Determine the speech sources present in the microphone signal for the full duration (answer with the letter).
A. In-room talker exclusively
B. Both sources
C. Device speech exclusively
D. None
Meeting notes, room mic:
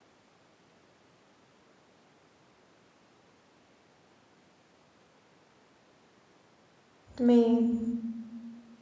A